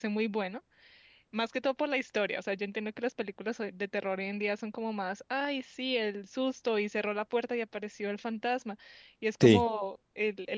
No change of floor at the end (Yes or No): Yes